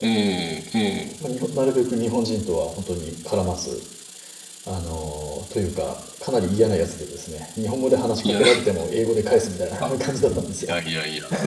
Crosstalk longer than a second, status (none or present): none